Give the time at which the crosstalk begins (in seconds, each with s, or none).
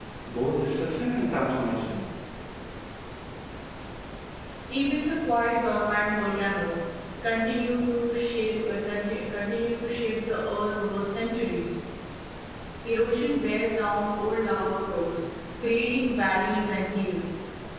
none